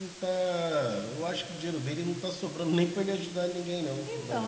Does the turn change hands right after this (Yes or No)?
Yes